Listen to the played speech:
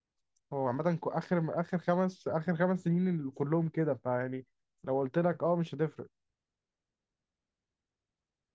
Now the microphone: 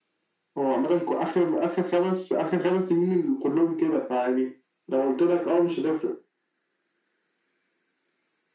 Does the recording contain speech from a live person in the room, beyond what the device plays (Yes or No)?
No